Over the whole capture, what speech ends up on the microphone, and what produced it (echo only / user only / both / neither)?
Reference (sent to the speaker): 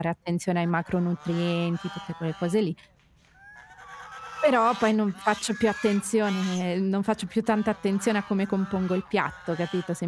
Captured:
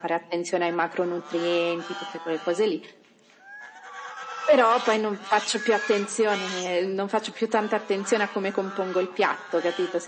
echo only